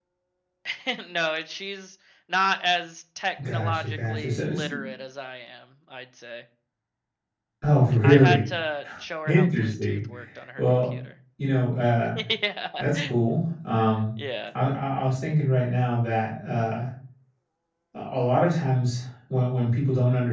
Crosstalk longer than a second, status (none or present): present